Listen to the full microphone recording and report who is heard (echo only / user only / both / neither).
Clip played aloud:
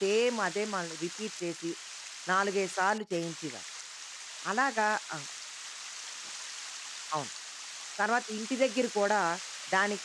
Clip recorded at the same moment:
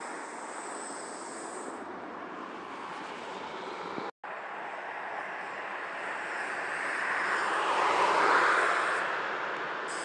neither